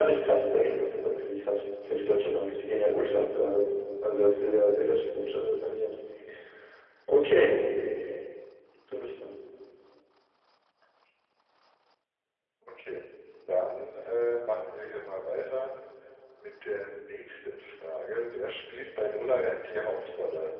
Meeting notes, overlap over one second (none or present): none